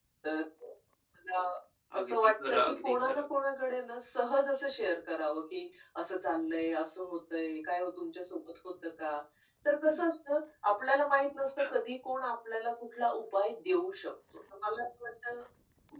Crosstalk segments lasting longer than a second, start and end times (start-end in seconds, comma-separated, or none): 2.0-3.2